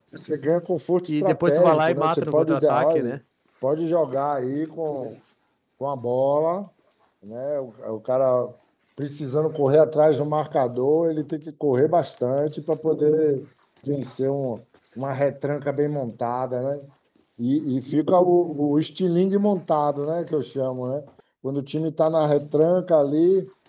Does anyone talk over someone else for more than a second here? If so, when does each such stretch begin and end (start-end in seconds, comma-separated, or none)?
1.1-3.2